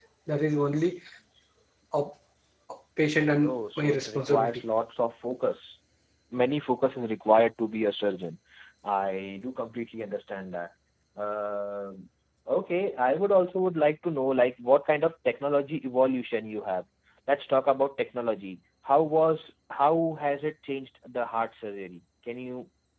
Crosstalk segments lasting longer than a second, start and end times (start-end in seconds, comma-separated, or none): 3.4-4.6